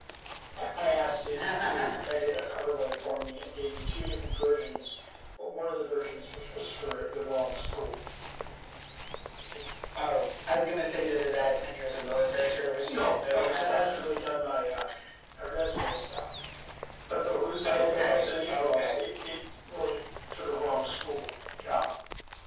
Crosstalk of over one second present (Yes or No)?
Yes